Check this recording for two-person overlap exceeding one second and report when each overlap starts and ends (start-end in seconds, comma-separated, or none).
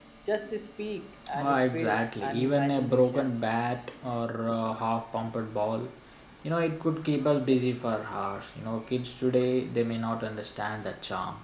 1.4-3.3